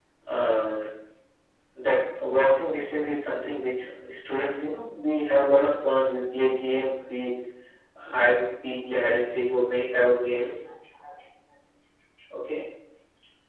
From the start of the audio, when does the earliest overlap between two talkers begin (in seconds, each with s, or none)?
none